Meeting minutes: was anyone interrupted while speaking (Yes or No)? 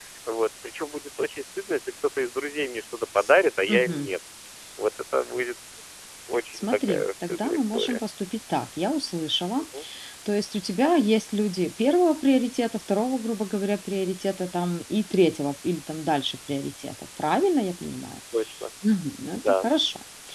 Yes